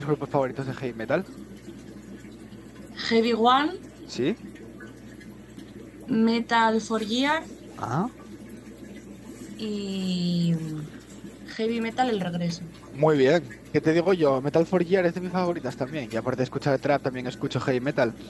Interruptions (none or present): none